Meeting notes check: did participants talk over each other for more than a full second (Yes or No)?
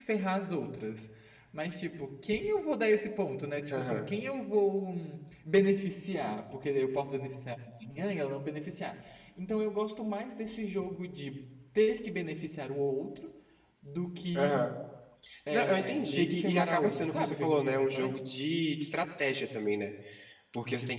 Yes